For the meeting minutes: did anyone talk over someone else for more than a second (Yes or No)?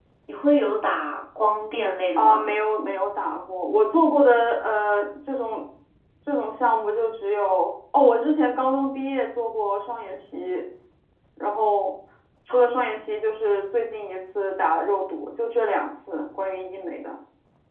No